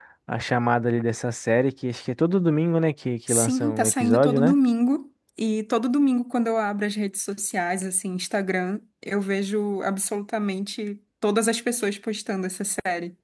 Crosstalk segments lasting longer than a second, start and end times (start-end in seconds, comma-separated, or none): 3.3-4.5